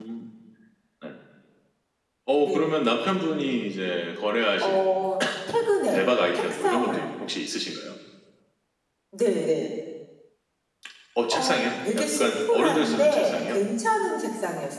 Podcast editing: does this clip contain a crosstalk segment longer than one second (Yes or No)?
Yes